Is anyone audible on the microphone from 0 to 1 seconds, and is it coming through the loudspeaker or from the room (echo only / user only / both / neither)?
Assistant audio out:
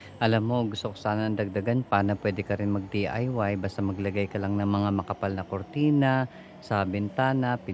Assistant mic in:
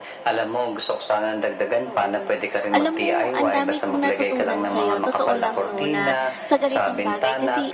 echo only